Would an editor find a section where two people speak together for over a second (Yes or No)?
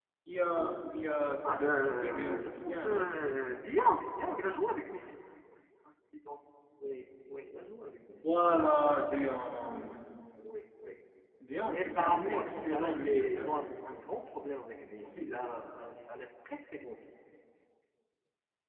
Yes